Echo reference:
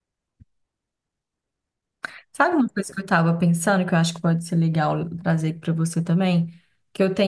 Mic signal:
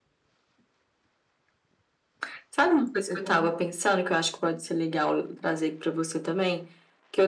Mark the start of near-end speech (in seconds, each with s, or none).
3.0 s